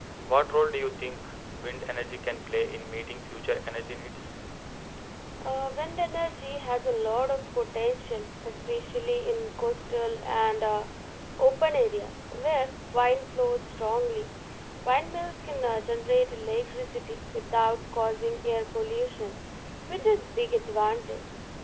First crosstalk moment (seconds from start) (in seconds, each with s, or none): none